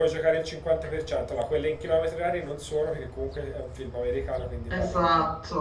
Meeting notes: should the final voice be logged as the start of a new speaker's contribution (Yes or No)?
No